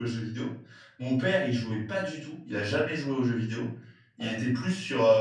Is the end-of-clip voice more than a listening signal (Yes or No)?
No